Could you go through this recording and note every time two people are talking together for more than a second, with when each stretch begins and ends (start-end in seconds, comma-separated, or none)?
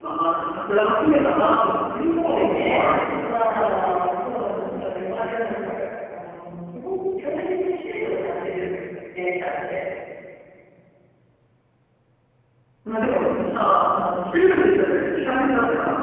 2.0-3.2